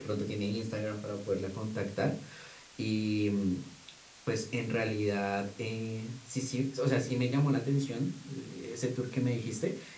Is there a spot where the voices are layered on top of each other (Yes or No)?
No